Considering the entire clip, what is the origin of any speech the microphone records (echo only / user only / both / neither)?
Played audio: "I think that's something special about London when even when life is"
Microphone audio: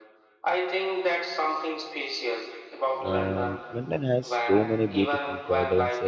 both